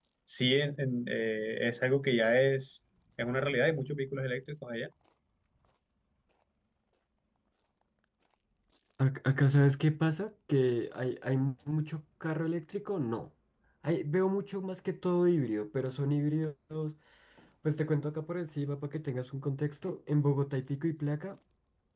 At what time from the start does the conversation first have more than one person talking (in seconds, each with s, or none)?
none